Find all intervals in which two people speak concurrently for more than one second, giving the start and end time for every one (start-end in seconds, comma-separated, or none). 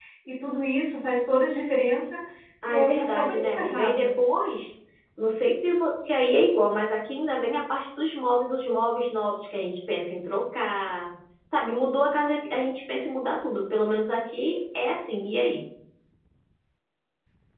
2.7-4.1